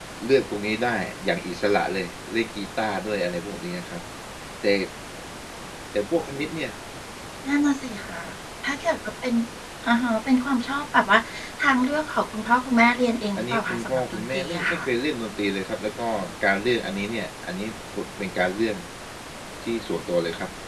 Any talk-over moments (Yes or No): Yes